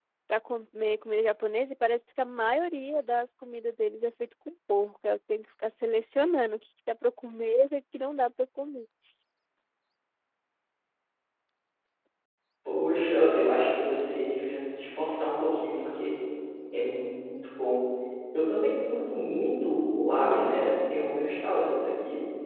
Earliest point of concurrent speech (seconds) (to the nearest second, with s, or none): none